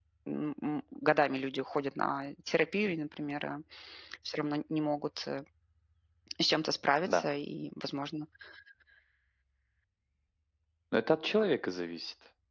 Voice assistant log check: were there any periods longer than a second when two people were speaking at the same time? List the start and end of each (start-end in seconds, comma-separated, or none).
none